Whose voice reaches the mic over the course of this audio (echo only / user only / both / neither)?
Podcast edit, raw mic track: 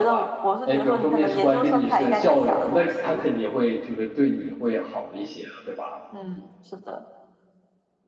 both